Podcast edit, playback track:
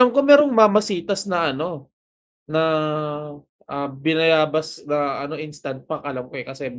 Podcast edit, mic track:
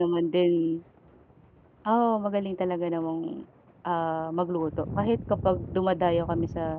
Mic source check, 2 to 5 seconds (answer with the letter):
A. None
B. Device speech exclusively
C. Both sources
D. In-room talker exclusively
D